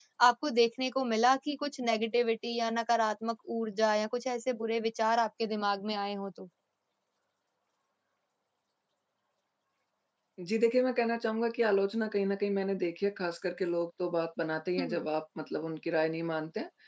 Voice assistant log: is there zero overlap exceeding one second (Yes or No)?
Yes